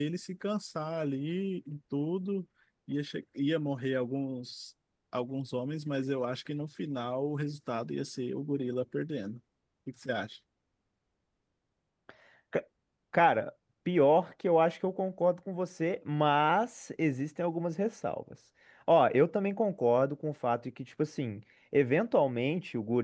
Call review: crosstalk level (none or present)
none